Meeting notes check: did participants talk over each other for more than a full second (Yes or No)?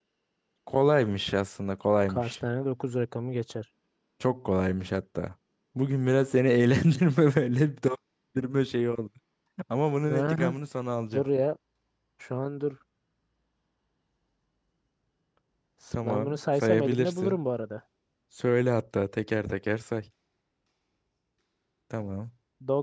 Yes